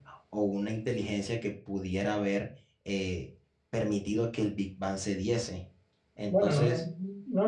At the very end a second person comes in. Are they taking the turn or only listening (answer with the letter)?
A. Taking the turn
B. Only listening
A